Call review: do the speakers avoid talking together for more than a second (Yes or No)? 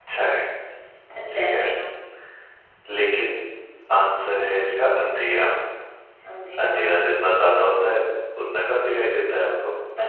Yes